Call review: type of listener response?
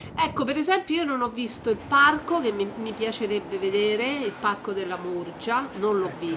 listening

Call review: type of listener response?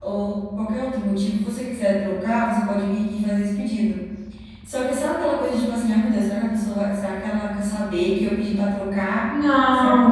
listening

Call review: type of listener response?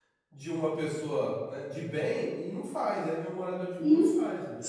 taking over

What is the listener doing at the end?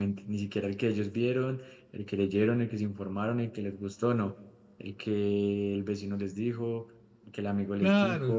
taking over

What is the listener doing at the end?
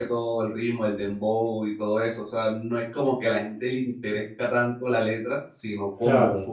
listening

